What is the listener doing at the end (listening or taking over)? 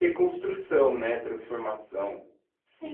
taking over